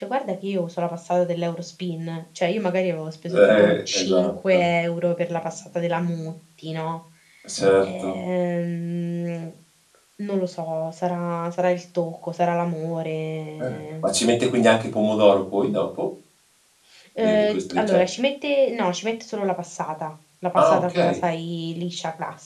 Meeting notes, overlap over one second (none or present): present